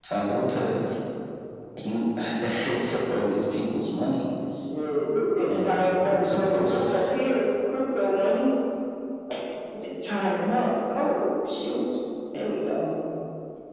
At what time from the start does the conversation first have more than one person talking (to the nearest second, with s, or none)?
5 s